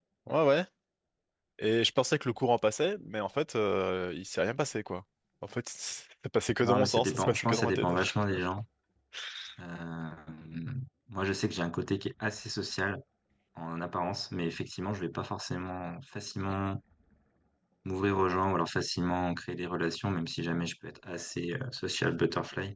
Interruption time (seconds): 7 s

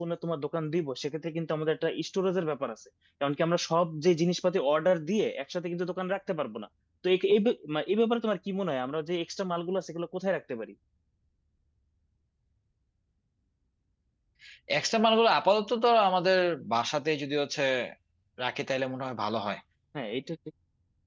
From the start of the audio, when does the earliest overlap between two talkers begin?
none

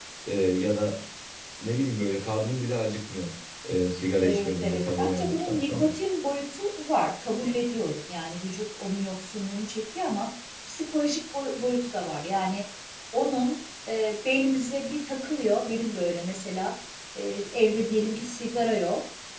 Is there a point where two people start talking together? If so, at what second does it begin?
4 s

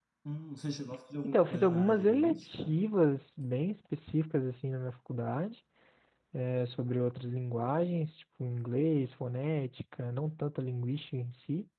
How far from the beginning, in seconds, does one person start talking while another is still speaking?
1 s

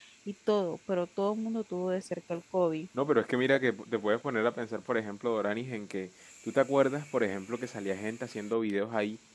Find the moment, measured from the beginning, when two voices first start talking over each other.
none

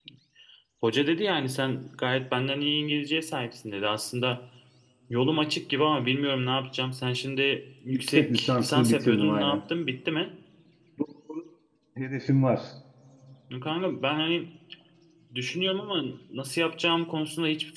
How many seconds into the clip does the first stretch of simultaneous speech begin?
8 s

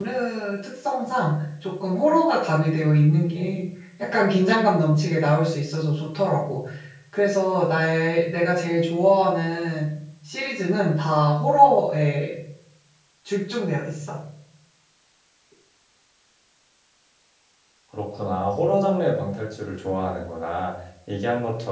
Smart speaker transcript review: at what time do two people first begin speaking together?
none

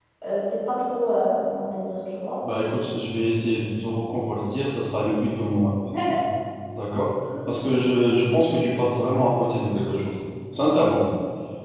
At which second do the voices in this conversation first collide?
none

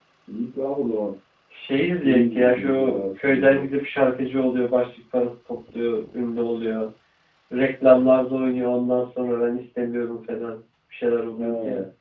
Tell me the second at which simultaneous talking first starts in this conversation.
2 s

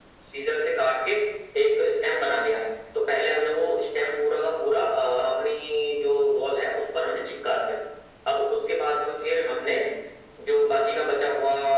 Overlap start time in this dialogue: none

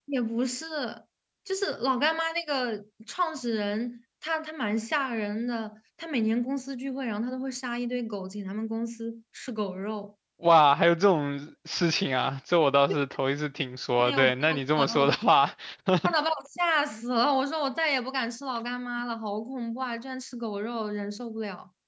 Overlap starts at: 14 s

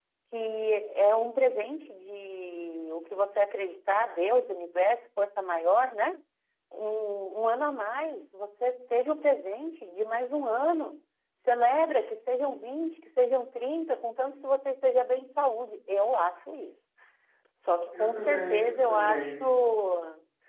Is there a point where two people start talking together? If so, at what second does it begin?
18 s

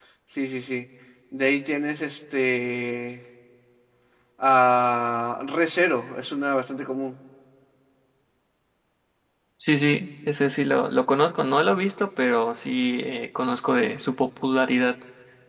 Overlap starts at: none

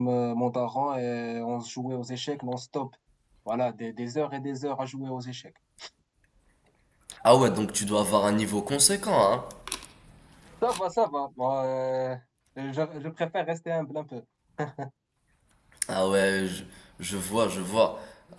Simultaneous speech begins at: none

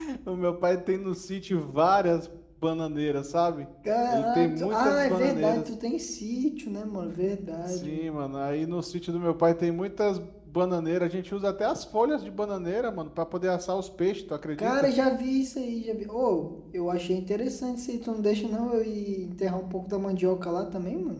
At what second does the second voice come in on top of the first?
4 s

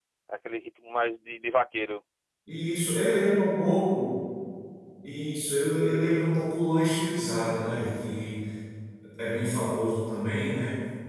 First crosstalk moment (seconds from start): none

